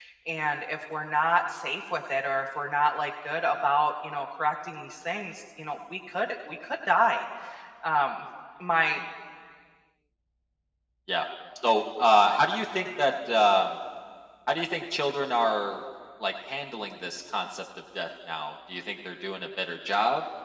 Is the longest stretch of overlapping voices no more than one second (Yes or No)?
Yes